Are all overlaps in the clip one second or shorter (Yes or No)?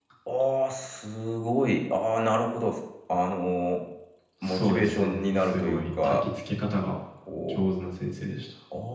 No